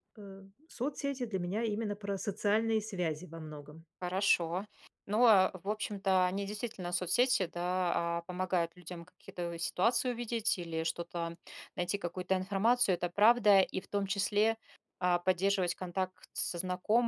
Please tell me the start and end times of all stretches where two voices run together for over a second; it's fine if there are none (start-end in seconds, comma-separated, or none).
none